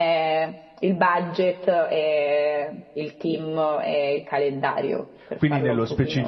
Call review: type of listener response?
taking over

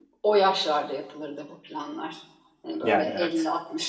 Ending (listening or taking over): listening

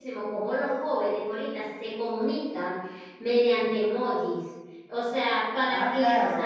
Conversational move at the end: taking over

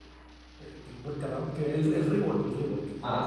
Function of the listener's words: listening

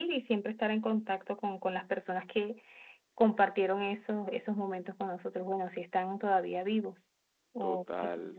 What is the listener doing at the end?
taking over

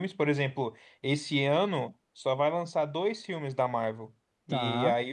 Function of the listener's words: listening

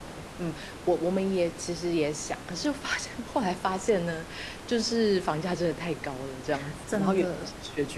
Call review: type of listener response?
listening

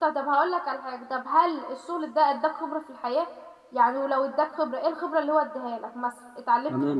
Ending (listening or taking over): taking over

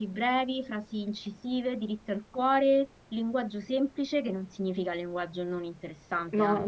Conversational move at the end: taking over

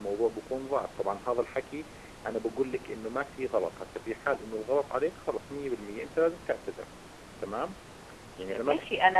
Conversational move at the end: taking over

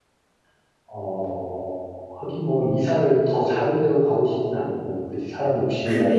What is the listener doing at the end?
taking over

